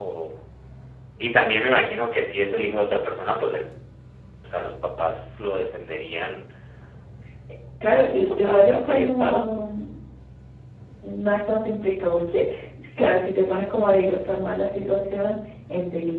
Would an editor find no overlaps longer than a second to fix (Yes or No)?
No